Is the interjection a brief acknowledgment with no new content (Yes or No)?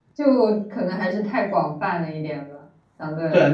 No